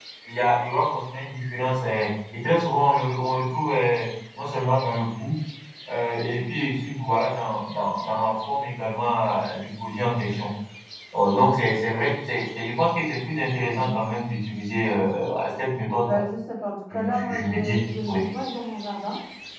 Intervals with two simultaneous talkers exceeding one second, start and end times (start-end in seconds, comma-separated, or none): 16.9-18.2